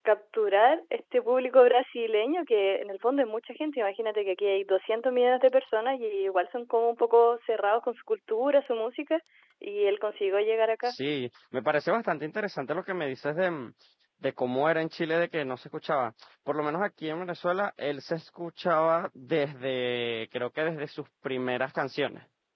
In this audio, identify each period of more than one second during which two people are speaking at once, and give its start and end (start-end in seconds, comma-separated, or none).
none